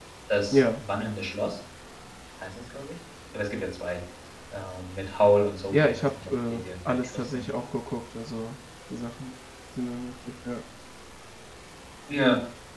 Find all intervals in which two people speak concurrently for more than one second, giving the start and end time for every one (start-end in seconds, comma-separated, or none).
5.7-7.5